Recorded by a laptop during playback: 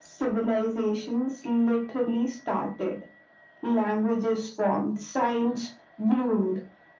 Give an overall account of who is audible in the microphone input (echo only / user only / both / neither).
echo only